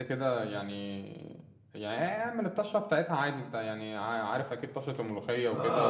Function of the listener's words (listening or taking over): taking over